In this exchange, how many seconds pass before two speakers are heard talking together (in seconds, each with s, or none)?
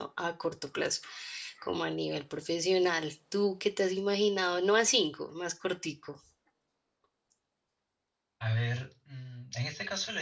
none